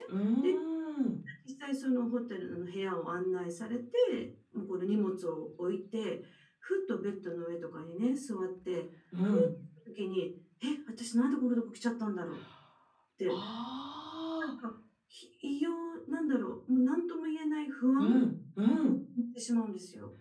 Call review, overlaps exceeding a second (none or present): none